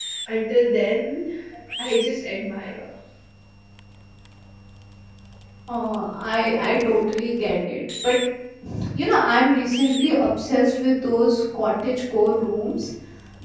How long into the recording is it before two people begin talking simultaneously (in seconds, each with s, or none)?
none